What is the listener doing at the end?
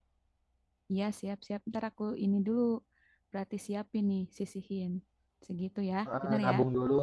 taking over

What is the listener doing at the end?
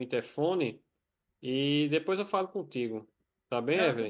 taking over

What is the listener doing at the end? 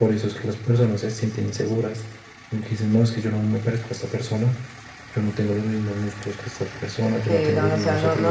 taking over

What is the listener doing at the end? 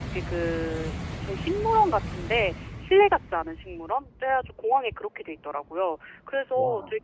listening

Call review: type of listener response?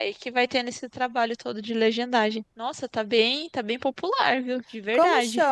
taking over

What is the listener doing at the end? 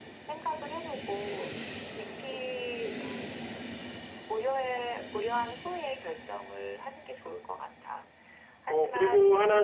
taking over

